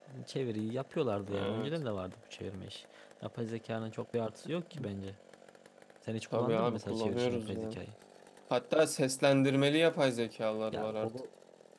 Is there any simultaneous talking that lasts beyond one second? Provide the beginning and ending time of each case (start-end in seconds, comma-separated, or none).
6.3-7.8